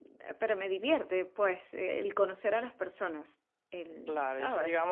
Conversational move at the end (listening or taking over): taking over